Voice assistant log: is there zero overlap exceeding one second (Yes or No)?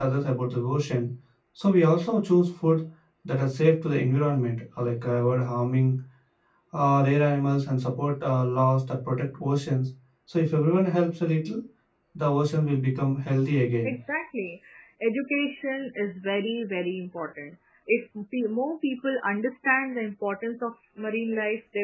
Yes